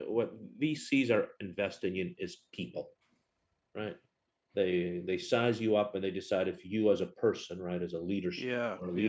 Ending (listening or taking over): listening